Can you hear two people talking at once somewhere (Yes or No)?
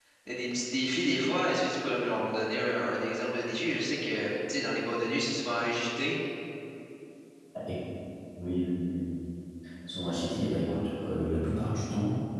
No